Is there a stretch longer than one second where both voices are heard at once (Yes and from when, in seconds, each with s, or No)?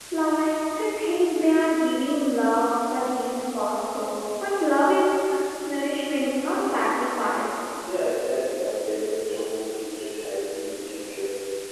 No